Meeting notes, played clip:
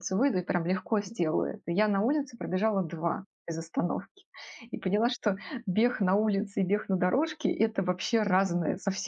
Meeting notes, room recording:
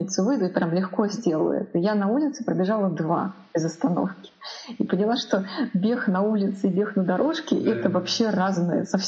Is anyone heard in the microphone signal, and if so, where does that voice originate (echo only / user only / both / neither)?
both